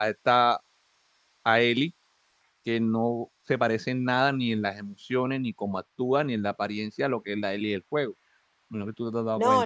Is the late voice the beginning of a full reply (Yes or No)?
Yes